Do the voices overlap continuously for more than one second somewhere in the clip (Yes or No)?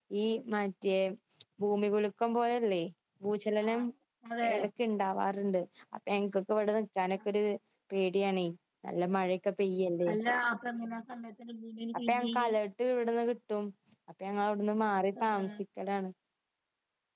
No